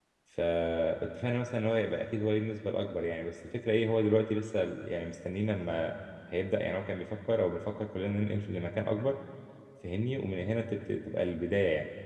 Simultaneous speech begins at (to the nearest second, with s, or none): none